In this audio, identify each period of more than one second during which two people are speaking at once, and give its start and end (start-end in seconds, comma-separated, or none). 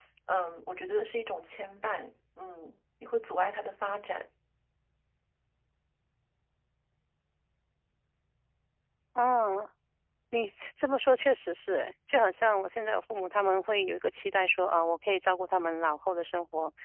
none